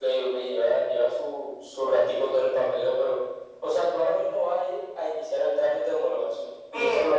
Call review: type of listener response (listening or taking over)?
listening